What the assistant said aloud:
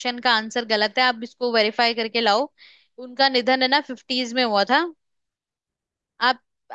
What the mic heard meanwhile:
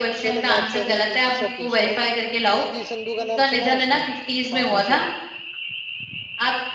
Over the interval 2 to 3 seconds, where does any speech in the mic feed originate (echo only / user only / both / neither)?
both